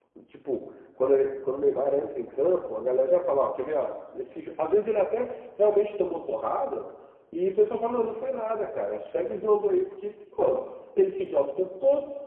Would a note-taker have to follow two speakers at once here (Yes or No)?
No